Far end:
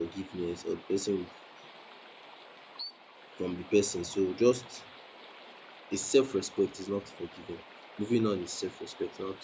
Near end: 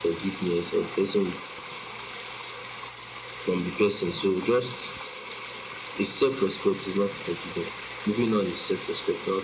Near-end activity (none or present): none